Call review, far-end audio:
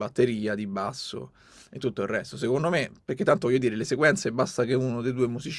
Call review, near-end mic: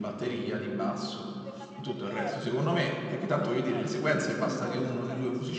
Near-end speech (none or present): present